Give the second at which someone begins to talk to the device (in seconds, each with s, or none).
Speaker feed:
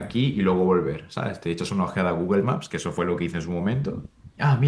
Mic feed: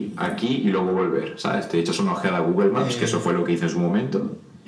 2.7 s